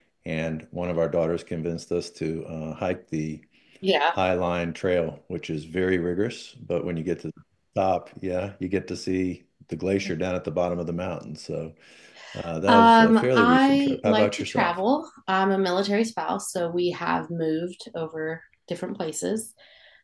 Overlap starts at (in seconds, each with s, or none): 12.7 s